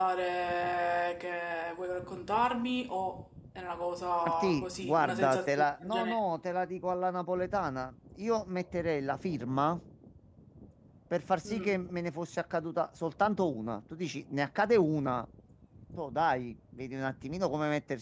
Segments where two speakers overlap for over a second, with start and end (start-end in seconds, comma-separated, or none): 4.2-6.2